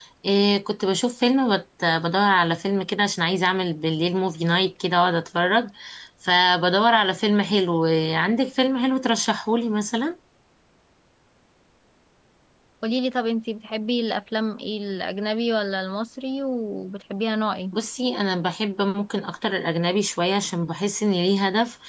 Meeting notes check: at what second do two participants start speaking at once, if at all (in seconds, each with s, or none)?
none